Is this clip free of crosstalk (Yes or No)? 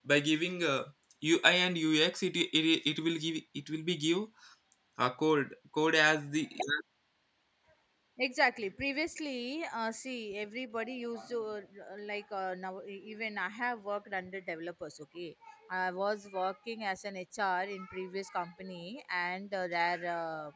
Yes